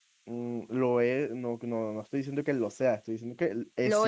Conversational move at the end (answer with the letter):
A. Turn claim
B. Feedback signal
B